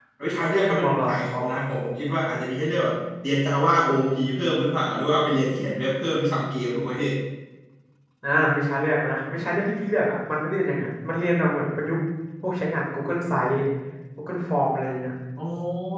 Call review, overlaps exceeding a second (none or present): none